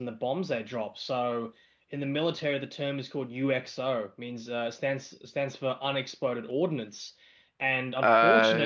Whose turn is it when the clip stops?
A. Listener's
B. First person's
B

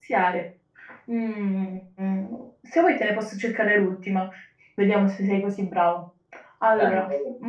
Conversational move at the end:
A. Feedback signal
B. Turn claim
A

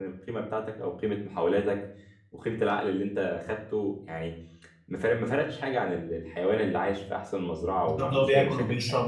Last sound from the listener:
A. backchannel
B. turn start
B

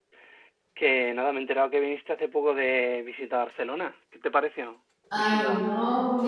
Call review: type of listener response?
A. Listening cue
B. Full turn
B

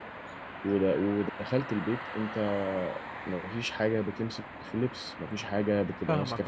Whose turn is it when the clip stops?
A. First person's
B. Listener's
B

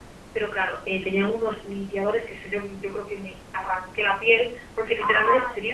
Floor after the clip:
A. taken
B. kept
B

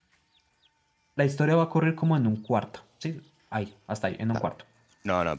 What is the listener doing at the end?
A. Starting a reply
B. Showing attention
A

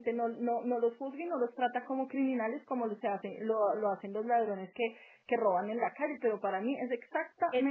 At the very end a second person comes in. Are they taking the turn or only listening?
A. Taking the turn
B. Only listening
A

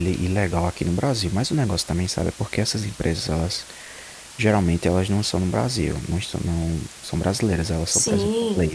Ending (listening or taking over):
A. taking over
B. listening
B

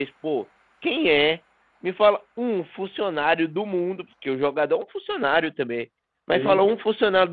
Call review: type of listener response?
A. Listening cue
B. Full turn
A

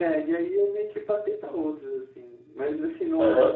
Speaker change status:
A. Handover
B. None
A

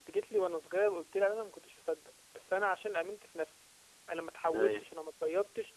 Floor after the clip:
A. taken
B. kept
B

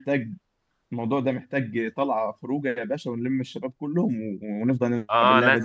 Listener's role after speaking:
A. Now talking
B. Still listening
A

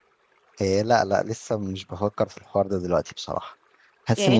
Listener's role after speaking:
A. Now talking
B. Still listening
A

